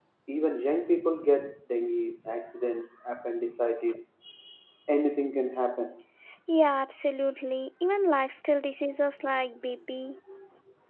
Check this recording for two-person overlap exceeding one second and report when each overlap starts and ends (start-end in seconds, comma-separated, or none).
none